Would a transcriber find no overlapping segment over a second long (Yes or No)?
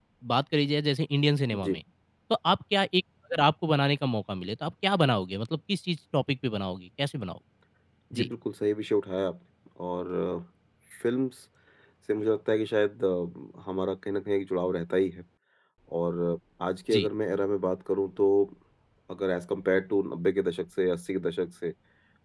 Yes